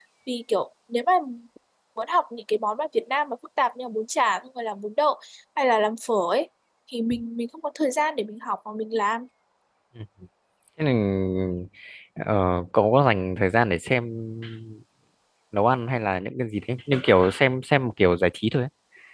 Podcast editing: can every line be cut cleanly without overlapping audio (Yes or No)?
Yes